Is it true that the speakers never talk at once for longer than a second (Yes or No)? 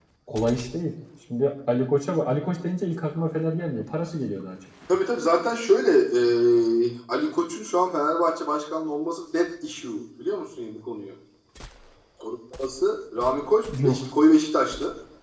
Yes